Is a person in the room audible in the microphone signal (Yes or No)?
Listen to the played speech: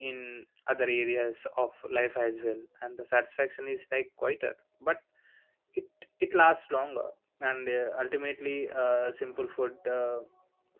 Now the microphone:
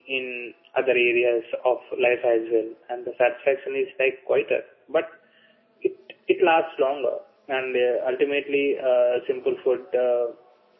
No